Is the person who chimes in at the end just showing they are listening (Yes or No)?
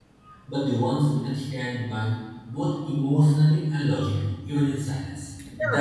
No